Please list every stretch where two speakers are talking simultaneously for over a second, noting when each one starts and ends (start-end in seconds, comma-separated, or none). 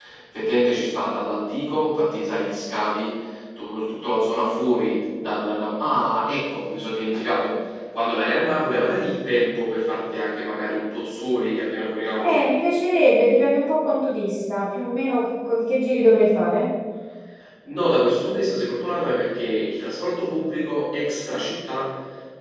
none